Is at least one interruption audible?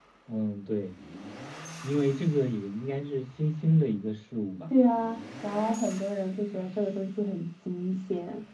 No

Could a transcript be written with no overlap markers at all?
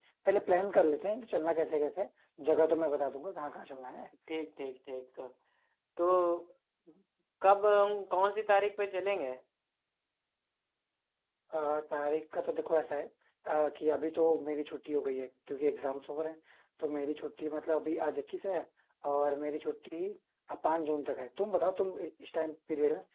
Yes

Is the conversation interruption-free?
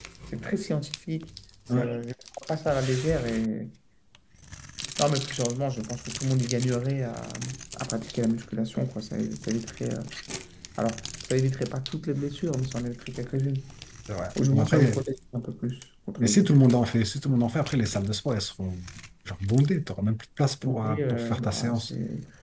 No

